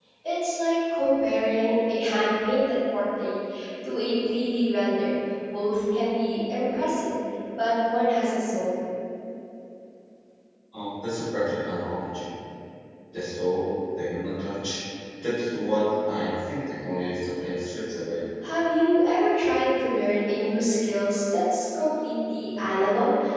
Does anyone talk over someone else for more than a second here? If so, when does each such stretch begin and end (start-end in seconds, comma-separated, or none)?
none